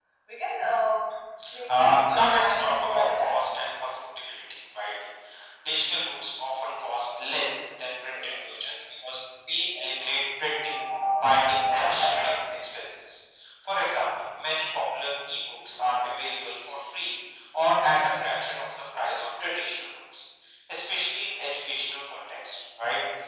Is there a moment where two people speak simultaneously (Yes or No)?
Yes